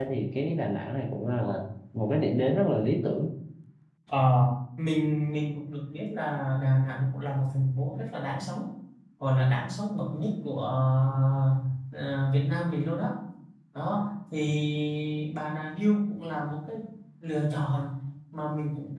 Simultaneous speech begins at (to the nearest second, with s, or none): none